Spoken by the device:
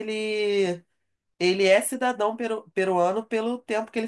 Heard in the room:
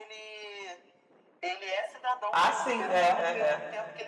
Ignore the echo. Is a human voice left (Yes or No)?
Yes